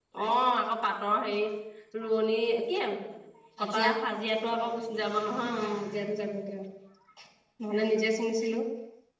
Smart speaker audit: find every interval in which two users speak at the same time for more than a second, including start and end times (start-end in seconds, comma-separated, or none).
none